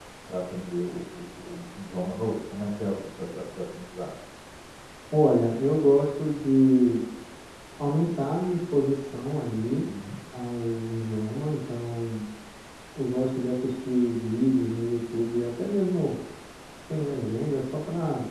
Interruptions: none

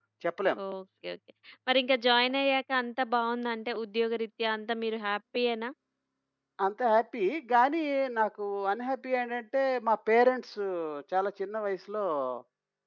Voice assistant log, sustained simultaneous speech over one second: none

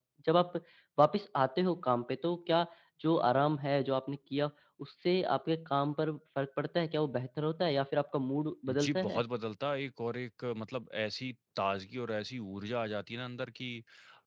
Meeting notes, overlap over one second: none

